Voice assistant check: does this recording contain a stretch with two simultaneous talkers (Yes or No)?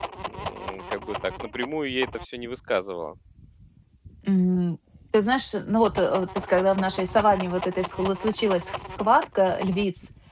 No